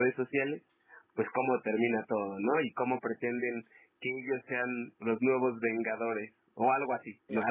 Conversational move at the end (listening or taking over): taking over